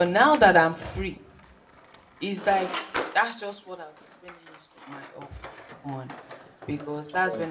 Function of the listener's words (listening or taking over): listening